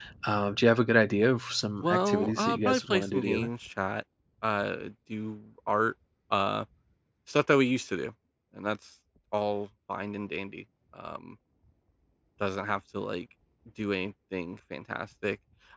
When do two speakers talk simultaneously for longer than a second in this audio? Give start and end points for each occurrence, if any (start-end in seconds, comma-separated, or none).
1.8-3.5